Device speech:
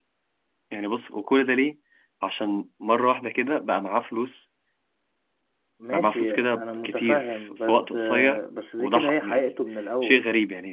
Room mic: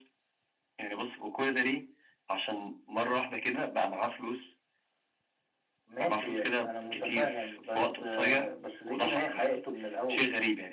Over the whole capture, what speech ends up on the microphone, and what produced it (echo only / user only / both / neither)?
echo only